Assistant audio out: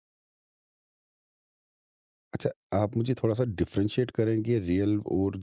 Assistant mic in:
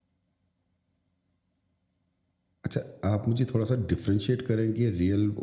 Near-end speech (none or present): none